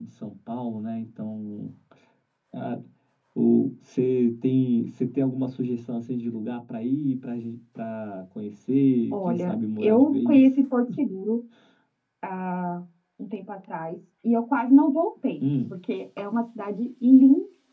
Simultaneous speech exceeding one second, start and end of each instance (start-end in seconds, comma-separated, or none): 9.1-10.6